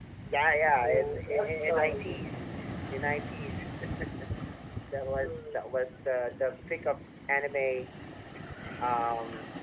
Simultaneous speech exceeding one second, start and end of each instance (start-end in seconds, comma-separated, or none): 0.8-2.2